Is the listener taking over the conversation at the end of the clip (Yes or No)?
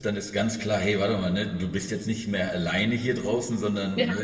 No